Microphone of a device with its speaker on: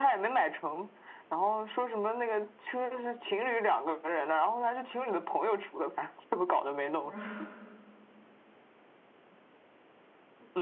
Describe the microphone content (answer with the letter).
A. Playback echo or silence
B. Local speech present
B